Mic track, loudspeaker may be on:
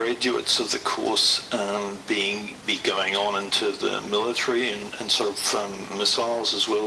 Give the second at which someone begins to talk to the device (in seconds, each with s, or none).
none